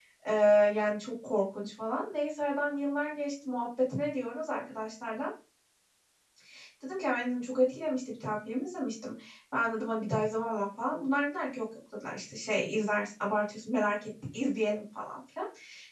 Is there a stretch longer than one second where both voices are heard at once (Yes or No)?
No